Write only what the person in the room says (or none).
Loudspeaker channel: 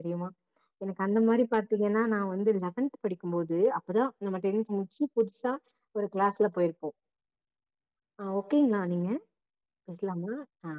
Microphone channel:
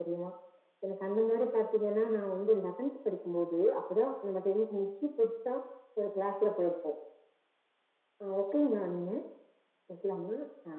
none